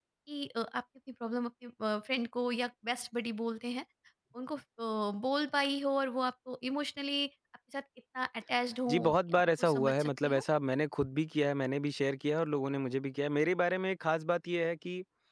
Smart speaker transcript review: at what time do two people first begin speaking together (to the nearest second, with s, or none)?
9 s